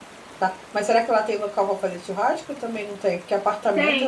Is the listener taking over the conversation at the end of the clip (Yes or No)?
Yes